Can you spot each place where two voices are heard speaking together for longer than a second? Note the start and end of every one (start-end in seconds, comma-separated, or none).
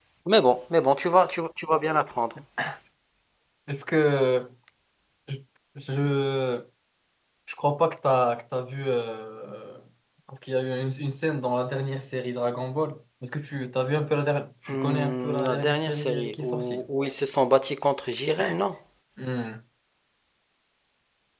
14.7-16.9